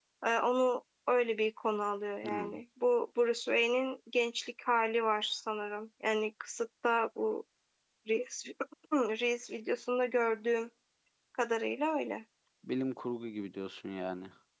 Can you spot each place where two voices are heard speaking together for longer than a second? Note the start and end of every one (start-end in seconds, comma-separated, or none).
none